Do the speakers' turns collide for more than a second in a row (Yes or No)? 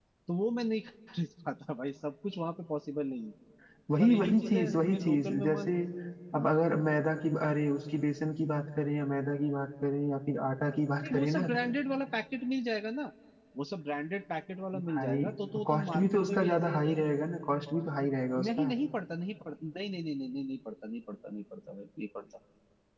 Yes